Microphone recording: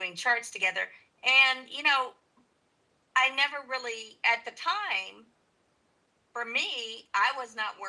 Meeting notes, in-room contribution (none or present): none